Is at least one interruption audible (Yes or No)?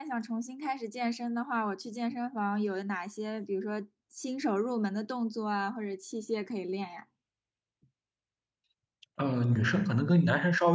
No